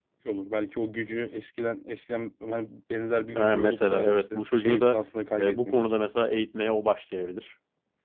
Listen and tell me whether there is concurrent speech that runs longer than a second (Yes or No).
Yes